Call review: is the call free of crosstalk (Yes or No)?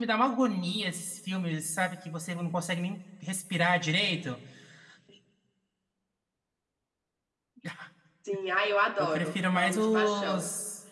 No